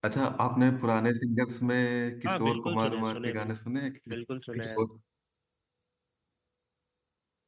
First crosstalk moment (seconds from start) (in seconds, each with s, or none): 2.2 s